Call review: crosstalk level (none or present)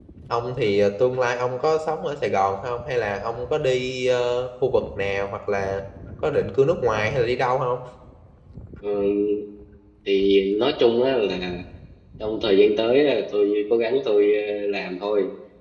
none